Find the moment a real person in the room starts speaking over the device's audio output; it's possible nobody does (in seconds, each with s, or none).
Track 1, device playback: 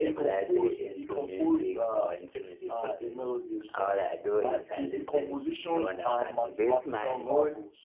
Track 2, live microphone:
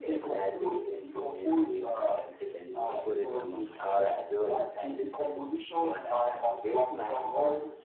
1.5 s